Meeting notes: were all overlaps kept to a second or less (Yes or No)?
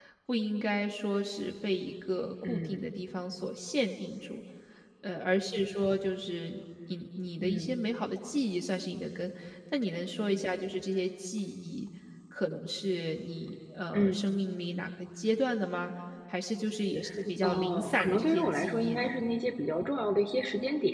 No